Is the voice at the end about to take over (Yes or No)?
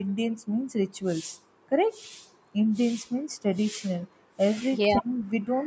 No